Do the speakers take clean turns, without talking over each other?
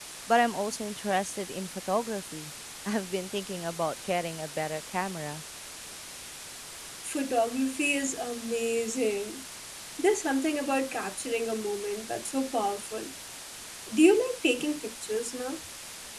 Yes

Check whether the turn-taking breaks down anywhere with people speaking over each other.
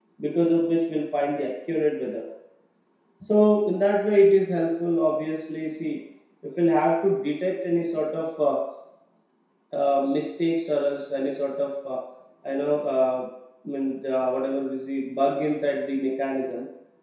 No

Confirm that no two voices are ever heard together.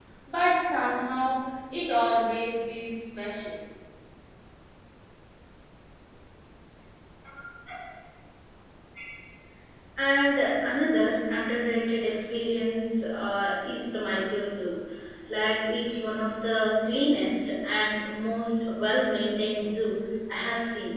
Yes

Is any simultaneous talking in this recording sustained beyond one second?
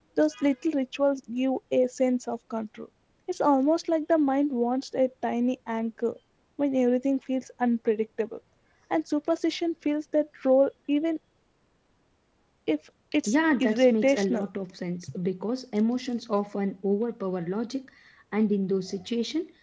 Yes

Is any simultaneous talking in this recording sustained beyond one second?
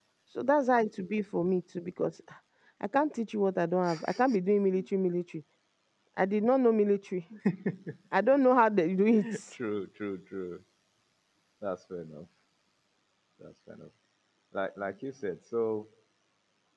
No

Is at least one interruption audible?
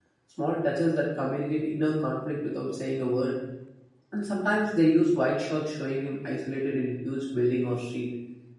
No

